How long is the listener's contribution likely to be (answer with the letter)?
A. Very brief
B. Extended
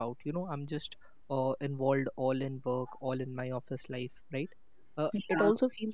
A